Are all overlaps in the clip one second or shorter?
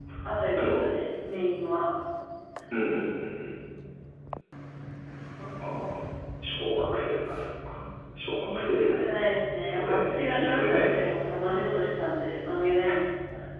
No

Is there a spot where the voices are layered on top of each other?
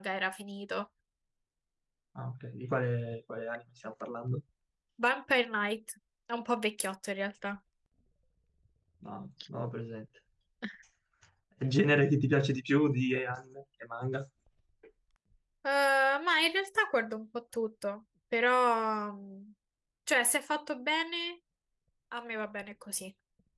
No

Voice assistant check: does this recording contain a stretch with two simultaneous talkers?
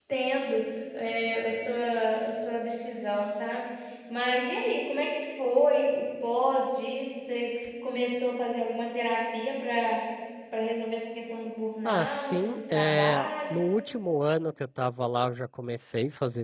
Yes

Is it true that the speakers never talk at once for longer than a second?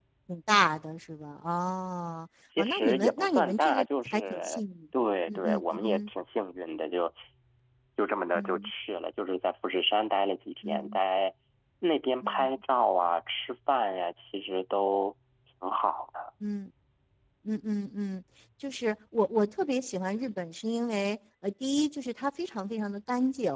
No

